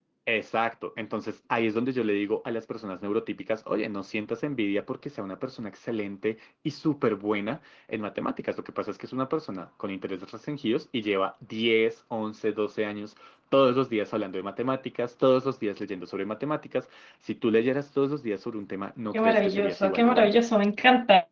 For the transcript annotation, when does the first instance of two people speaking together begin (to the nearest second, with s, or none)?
19 s